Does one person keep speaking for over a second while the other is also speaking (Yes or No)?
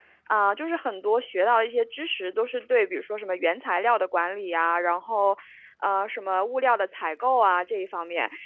No